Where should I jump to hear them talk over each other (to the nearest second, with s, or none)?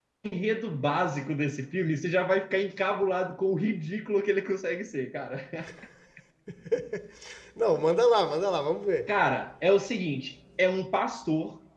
none